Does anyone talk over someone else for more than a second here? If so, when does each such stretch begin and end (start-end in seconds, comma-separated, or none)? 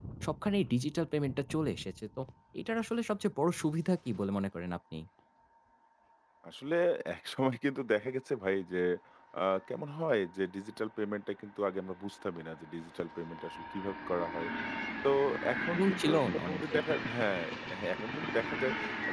15.7-17.0